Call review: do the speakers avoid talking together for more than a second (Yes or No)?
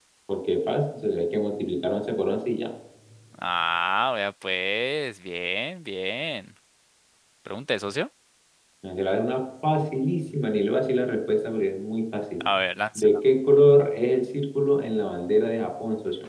Yes